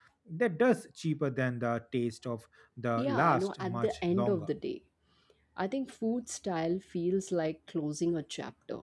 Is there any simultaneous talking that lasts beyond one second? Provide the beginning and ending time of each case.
3.0-4.5

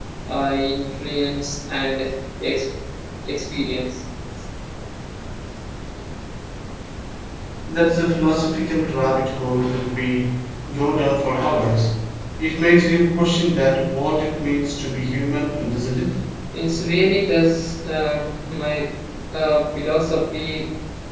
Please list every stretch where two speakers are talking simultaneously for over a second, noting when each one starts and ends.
none

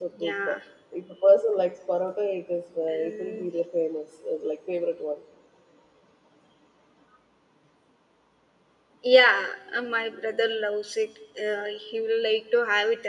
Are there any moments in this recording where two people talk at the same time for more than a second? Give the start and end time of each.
none

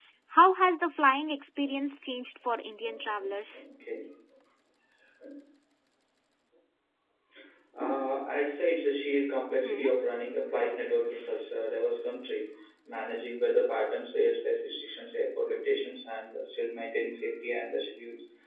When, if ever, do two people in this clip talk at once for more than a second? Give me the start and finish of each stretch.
none

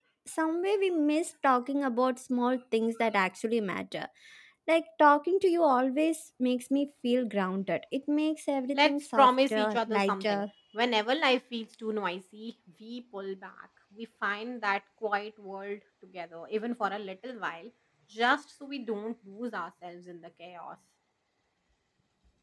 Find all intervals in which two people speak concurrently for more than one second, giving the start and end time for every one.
8.7-10.4

